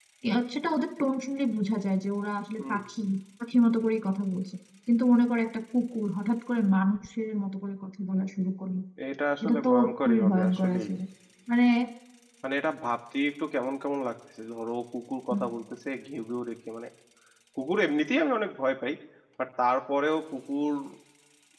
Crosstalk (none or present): present